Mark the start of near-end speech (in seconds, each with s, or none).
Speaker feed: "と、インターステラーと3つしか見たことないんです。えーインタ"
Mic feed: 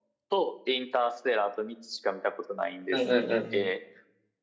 2.9 s